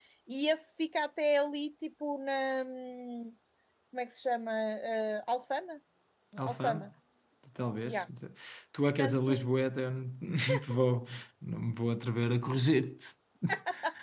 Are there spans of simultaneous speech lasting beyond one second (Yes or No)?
No